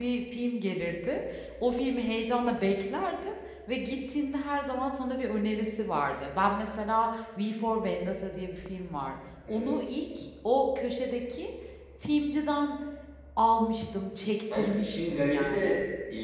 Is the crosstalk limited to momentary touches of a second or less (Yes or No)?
No